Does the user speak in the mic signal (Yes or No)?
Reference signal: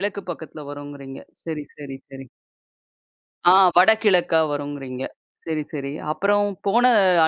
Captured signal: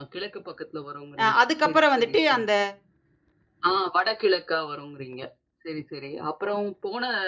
Yes